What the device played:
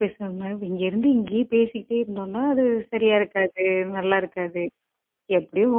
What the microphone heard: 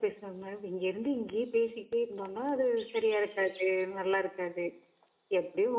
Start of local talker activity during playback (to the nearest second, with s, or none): none